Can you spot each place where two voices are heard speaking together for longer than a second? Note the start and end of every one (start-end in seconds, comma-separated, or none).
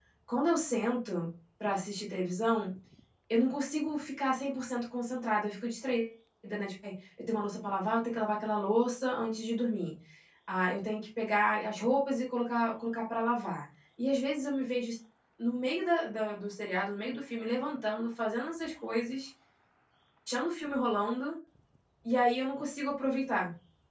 none